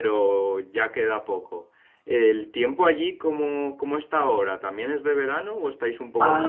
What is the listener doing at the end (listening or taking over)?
taking over